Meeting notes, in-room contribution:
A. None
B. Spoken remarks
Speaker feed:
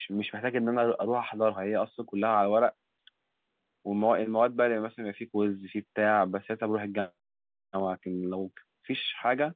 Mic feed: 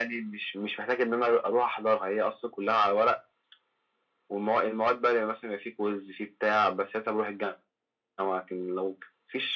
A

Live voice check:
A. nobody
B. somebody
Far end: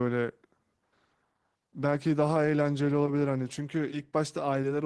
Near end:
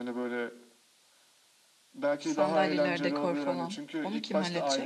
B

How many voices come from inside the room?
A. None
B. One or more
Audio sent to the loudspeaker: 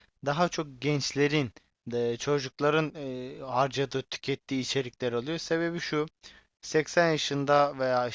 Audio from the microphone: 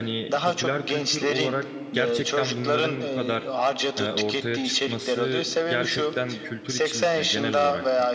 B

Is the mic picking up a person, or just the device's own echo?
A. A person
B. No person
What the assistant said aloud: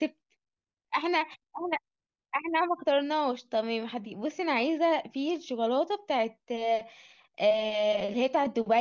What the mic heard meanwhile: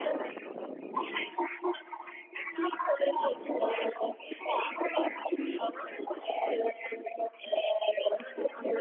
B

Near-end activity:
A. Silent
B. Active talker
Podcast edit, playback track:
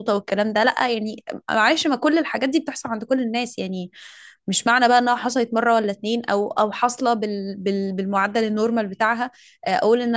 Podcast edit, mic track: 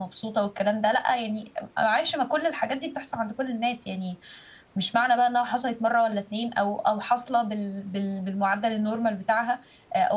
A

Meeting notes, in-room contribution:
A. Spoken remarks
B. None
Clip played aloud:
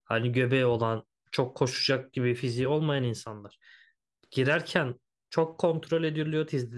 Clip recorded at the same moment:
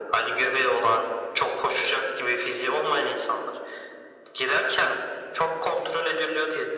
B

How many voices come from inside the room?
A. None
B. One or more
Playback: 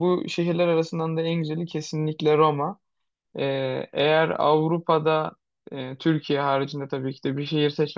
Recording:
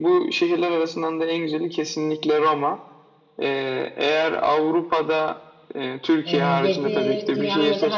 B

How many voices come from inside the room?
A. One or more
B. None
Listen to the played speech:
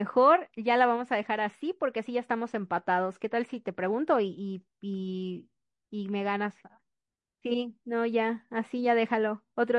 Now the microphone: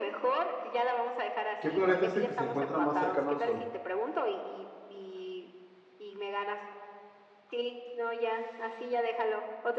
A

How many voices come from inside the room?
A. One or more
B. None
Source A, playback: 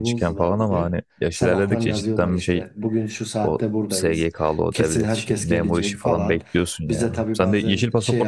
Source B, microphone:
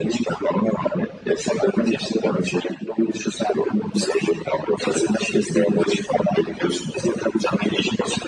B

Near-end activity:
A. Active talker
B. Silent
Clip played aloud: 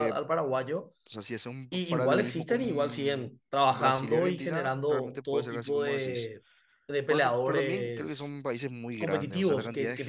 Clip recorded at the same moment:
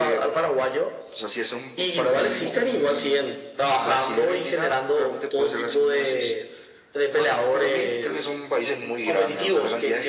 B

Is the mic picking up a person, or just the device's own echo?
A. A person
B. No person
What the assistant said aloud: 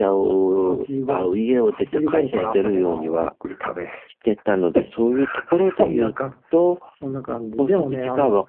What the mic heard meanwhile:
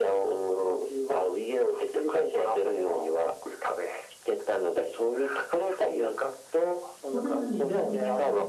A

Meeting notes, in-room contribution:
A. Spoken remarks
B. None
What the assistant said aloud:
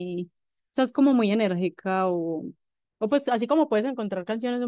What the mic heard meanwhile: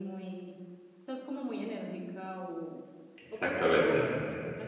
A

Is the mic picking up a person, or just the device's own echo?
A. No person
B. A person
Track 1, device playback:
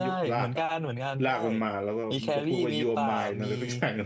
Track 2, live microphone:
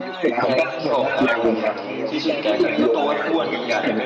B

